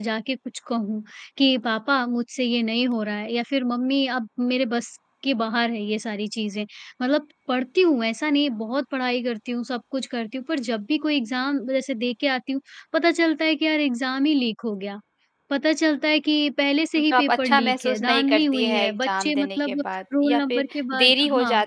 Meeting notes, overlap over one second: present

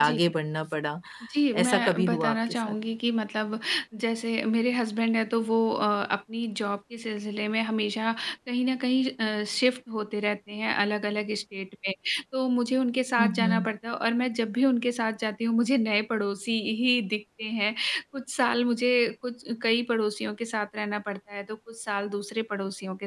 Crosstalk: present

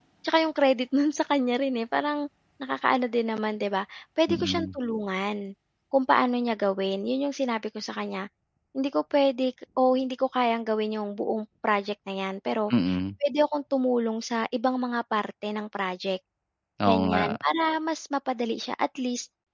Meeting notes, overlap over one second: none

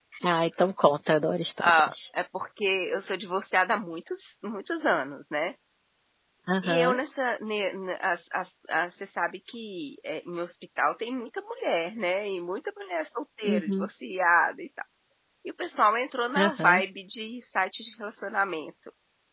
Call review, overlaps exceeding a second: none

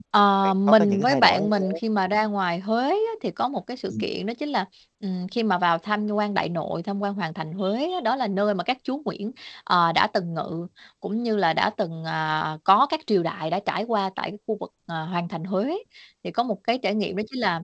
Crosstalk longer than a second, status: present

